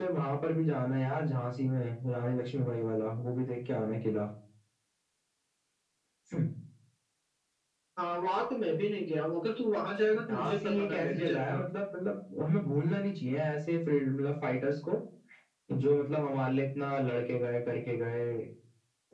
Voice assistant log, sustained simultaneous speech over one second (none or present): present